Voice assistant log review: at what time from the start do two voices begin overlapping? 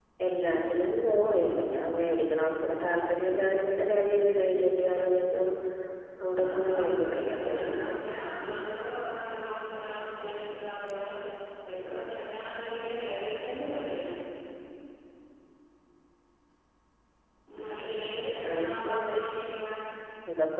6 s

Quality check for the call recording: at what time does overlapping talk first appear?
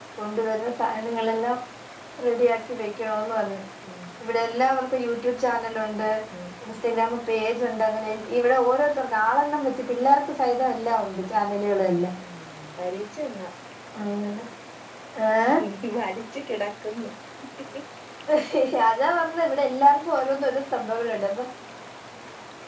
none

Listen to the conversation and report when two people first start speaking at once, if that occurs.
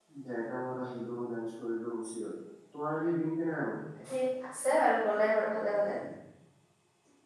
none

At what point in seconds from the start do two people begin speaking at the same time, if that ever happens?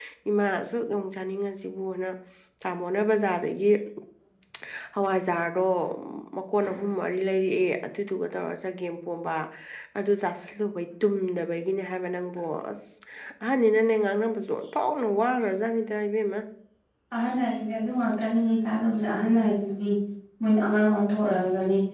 none

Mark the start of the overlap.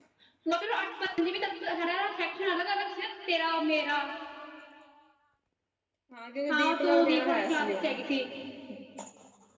7 s

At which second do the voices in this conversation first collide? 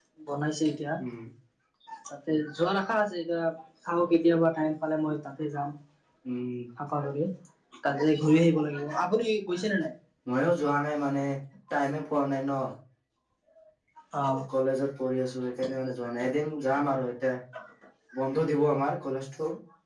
none

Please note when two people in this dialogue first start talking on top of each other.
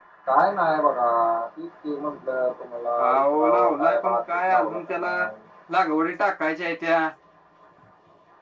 3 s

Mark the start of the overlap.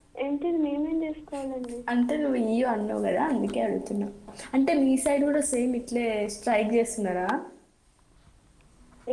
none

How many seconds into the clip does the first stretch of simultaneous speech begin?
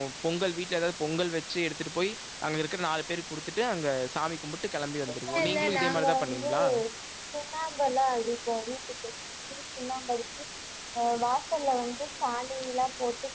5 s

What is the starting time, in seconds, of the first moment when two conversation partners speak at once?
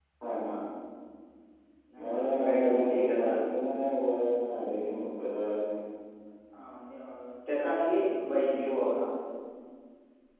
2 s

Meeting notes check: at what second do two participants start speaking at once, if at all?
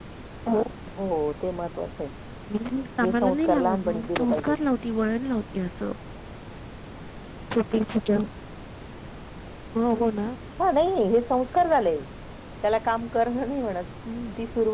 3 s

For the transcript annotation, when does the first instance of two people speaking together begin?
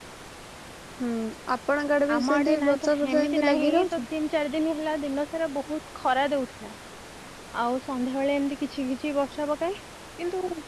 2 s

